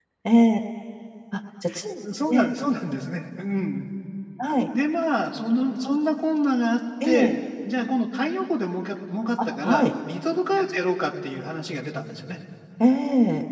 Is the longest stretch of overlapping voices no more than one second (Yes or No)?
Yes